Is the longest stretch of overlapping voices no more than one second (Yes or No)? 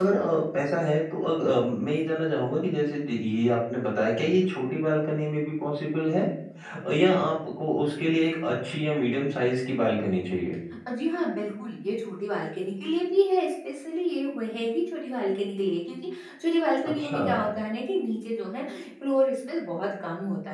Yes